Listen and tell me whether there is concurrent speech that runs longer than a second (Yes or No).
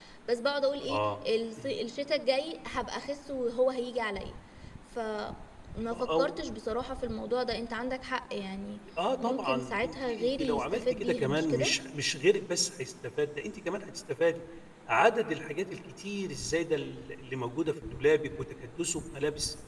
Yes